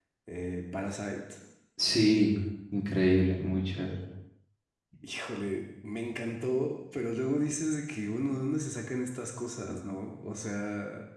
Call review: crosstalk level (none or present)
none